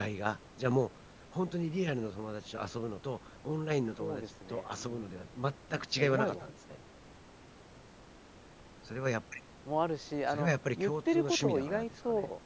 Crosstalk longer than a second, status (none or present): present